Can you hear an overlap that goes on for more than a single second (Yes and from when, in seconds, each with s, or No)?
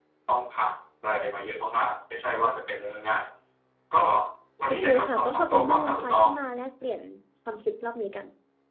Yes, from 4.7 s